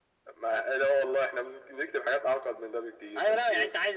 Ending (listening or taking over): taking over